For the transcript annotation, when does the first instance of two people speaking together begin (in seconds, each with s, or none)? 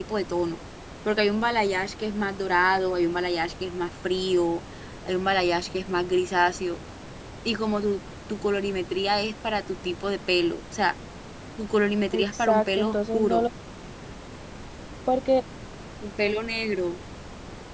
12.1 s